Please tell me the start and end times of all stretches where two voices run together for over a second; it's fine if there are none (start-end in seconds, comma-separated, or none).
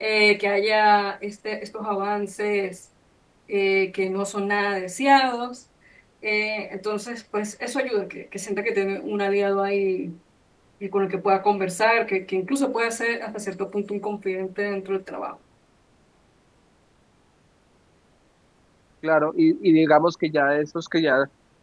none